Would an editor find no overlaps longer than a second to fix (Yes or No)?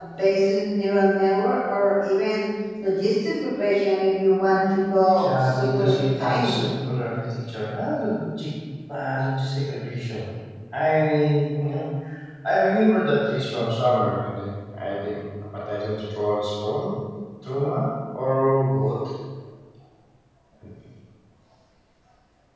No